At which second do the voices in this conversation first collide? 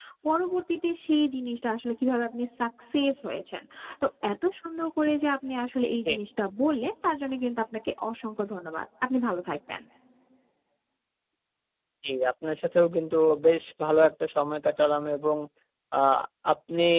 none

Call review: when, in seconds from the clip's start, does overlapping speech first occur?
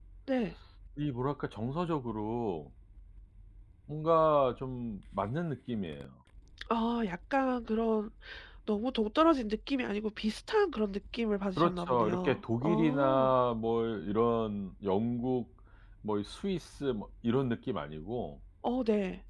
11.6 s

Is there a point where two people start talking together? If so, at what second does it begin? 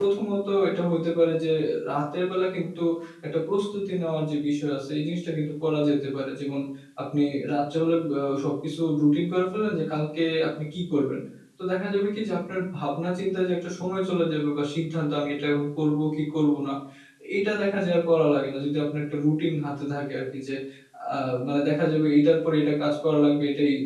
none

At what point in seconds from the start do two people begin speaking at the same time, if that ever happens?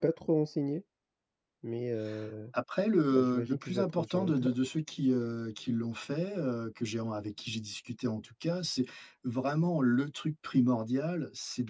3.1 s

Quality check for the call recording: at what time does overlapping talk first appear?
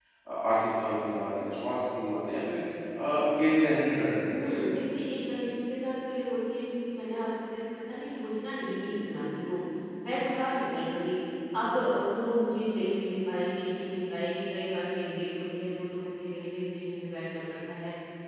none

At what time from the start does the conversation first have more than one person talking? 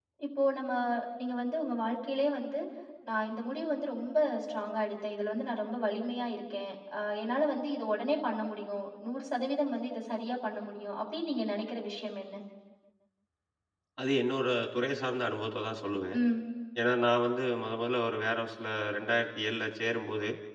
none

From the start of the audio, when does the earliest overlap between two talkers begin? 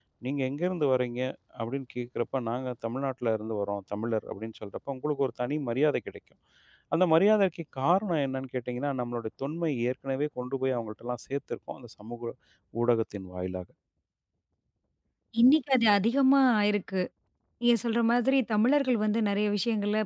none

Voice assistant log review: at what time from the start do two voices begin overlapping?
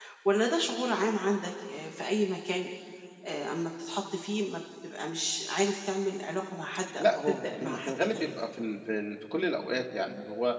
7.0 s

